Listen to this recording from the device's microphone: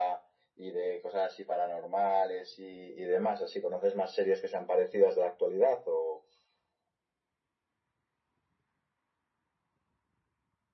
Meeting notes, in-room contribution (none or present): none